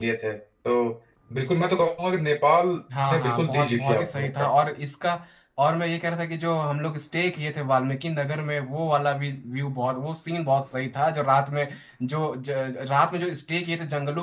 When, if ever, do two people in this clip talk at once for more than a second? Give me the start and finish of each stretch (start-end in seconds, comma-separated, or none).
3.1-4.5